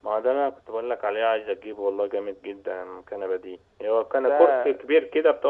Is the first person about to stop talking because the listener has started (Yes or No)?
No